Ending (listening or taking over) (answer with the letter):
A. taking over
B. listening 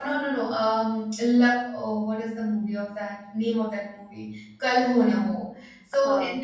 B